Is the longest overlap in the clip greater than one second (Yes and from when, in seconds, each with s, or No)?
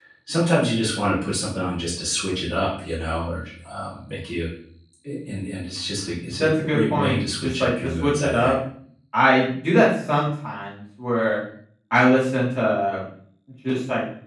Yes, from 6.3 s